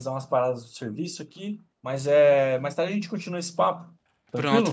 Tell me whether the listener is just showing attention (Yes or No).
No